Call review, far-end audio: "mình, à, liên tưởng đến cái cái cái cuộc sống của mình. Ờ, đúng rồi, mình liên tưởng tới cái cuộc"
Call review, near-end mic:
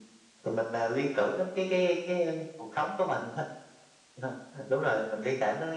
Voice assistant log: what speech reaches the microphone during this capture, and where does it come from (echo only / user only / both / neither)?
echo only